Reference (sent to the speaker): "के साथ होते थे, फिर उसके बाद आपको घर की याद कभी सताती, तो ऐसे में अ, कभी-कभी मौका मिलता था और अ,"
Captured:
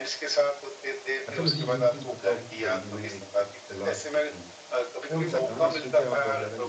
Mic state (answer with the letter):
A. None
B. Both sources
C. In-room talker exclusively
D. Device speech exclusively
B